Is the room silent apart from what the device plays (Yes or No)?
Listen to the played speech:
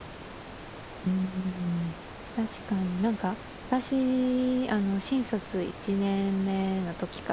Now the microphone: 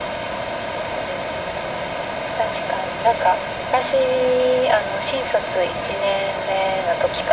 Yes